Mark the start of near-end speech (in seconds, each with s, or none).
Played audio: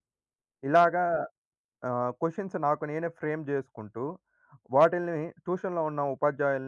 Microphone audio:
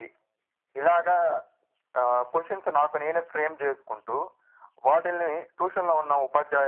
none